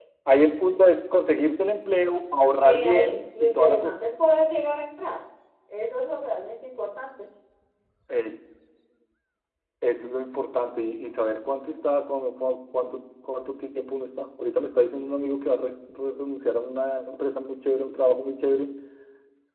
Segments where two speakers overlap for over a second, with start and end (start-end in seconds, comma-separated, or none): 2.6-4.0